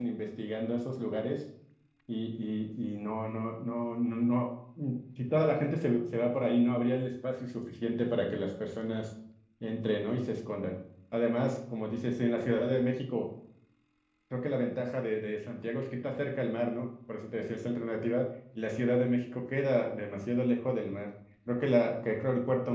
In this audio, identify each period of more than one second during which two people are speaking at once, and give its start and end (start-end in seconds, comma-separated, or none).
none